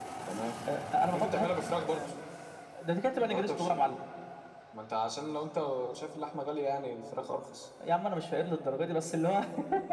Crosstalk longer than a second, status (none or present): none